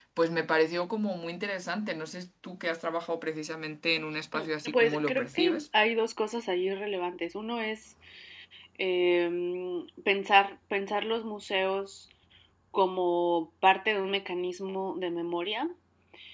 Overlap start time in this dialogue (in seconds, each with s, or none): 4.3 s